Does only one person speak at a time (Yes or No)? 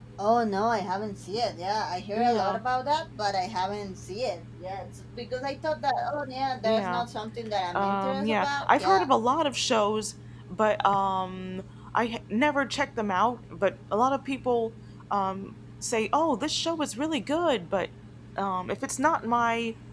No